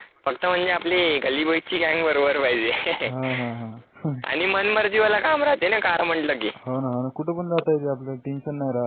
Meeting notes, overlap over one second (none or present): none